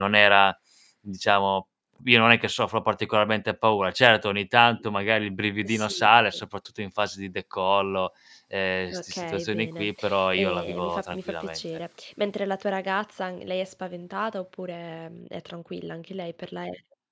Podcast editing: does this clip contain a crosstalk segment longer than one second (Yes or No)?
Yes